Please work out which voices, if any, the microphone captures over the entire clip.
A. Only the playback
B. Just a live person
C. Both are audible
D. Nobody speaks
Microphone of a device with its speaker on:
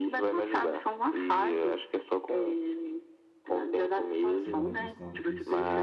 C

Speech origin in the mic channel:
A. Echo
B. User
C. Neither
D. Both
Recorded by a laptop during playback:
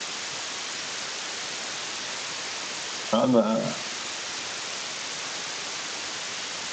B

